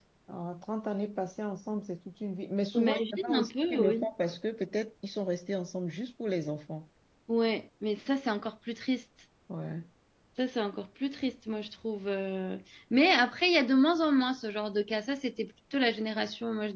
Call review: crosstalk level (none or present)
present